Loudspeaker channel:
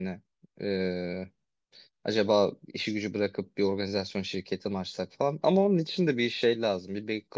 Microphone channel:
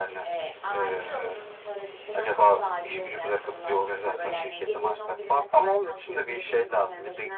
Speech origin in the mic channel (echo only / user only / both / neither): both